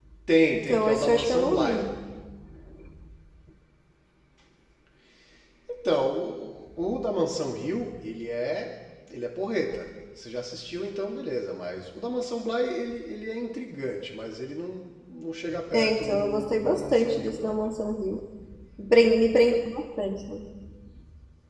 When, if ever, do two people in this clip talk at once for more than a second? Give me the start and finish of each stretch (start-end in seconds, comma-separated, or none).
0.5-1.8, 15.7-17.6